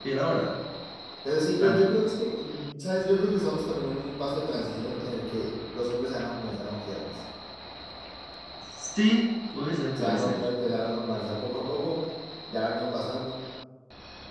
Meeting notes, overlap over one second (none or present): none